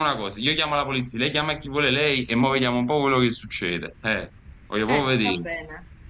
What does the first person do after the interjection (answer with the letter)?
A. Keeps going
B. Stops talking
B